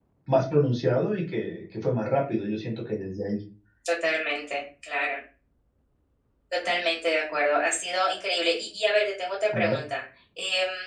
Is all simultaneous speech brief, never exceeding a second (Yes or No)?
Yes